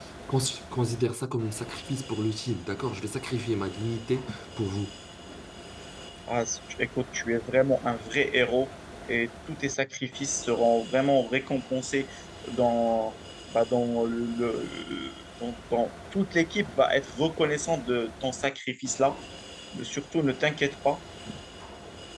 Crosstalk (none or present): none